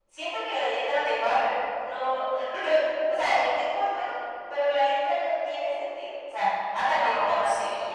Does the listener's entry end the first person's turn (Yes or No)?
No